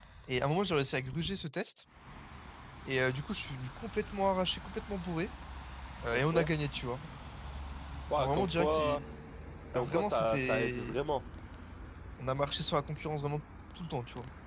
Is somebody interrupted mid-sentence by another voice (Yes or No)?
Yes